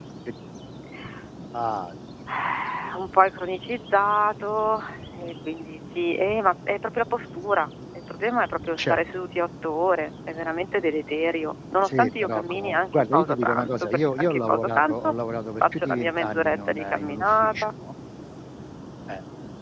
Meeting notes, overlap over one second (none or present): present